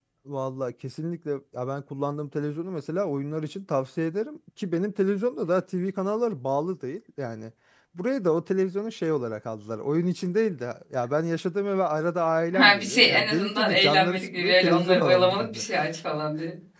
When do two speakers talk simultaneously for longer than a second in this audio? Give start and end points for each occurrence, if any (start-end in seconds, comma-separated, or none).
12.5-15.6